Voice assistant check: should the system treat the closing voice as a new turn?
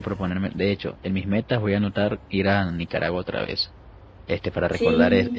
No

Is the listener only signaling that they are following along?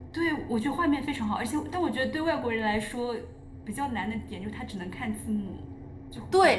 No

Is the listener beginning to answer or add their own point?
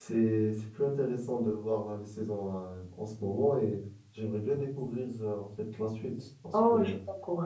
Yes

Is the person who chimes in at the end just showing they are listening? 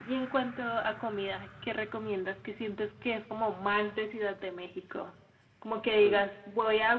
Yes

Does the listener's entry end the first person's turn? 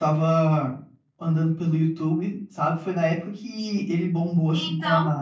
No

